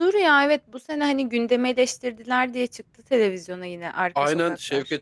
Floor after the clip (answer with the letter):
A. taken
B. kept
A